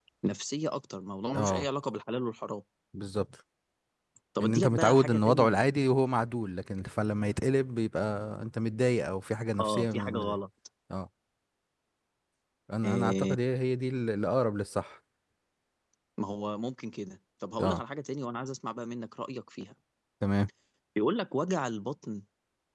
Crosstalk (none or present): present